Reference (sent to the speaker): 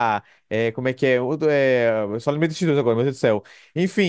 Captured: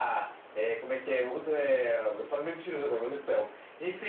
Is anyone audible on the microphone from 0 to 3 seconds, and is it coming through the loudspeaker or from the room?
echo only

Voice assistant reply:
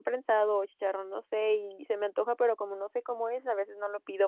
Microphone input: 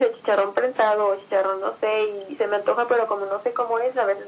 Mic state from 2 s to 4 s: echo only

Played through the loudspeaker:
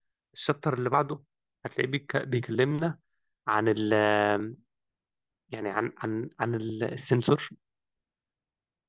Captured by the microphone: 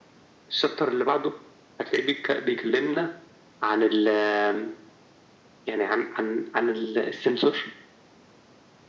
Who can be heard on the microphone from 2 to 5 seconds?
echo only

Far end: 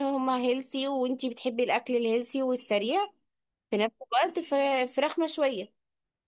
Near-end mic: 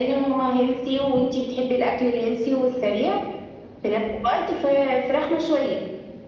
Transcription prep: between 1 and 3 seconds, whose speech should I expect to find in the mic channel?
echo only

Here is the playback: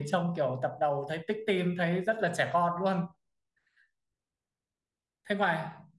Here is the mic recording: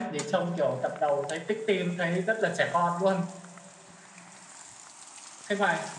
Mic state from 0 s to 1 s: echo only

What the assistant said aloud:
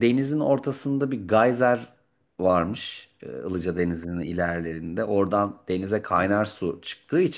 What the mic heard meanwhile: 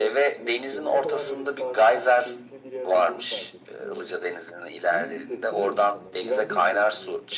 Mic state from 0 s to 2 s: both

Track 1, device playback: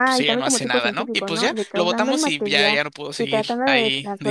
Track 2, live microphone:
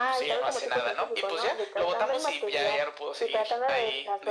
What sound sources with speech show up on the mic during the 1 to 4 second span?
echo only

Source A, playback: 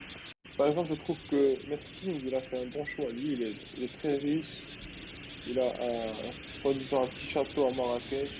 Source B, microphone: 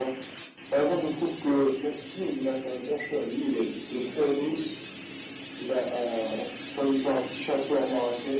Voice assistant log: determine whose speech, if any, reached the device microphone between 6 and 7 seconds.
echo only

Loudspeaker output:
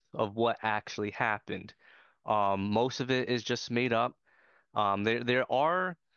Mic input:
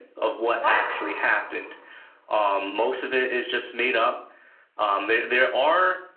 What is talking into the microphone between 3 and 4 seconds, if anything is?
echo only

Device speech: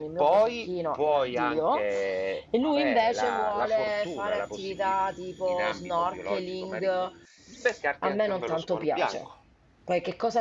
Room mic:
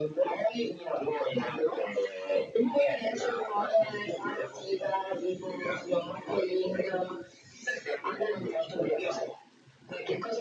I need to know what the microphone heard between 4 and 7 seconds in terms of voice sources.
echo only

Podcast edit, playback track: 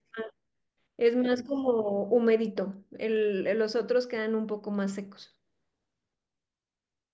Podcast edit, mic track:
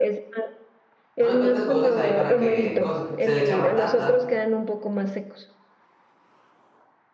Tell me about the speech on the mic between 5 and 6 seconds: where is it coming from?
echo only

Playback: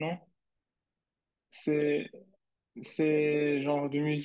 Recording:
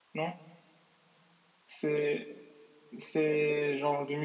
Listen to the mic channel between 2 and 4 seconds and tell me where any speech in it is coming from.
echo only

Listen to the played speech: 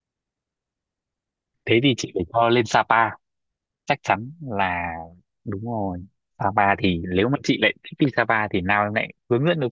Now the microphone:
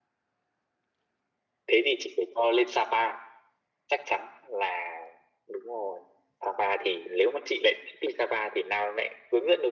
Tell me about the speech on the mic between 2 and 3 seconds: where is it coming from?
echo only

